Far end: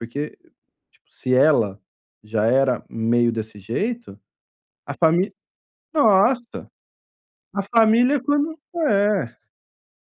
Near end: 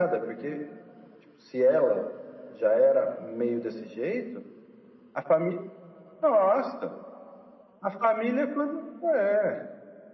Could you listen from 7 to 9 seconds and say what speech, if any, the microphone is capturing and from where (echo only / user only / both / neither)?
echo only